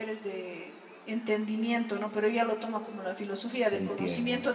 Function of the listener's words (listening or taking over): listening